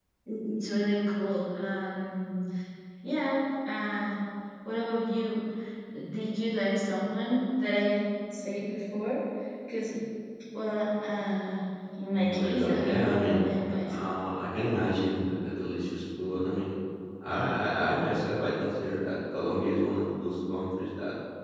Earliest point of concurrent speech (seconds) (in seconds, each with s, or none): 12.1 s